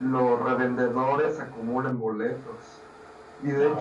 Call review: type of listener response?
listening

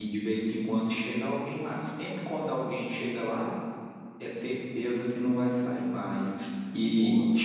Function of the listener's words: listening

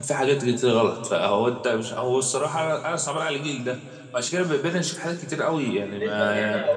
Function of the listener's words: taking over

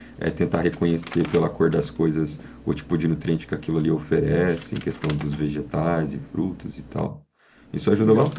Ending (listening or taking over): listening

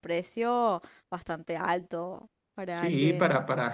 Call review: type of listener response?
taking over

